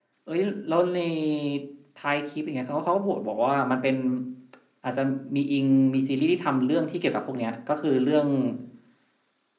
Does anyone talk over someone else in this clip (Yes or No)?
No